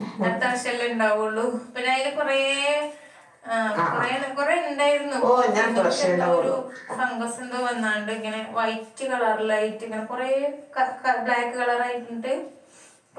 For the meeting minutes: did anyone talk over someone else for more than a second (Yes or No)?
Yes